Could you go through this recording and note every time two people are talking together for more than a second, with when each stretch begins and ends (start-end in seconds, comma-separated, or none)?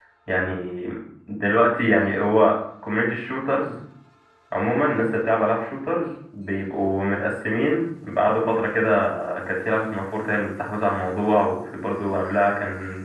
none